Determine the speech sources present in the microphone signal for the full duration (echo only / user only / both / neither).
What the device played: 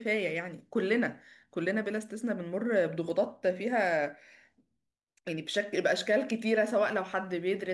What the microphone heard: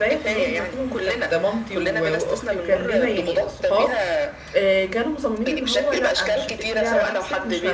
both